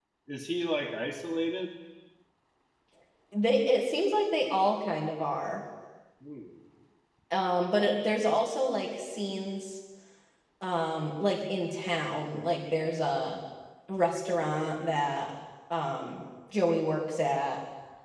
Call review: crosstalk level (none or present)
none